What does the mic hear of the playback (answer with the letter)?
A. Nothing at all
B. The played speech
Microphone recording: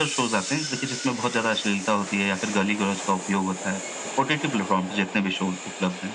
B